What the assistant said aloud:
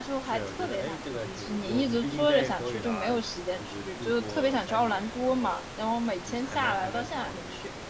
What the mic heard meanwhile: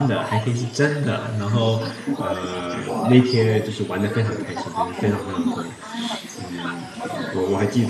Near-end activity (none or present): present